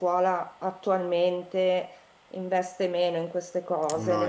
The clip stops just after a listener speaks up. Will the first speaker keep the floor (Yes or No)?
Yes